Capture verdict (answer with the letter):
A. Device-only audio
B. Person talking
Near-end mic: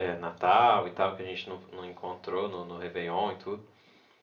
A